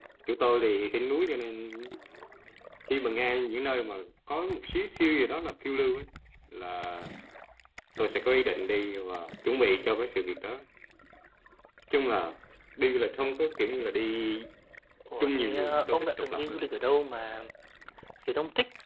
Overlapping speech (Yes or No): Yes